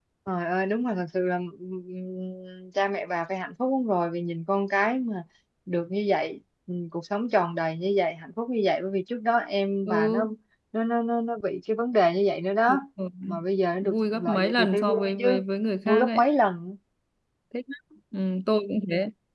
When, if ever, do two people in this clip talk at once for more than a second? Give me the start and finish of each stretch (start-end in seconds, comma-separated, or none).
13.8-15.4